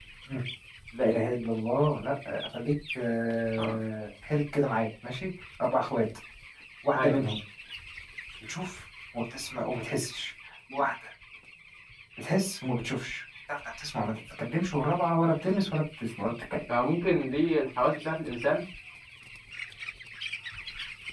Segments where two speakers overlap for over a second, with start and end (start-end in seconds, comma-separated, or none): none